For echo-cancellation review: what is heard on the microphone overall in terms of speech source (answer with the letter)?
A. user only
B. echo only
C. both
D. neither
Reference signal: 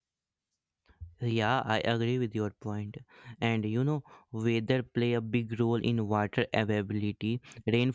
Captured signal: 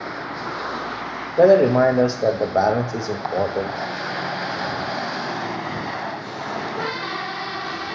A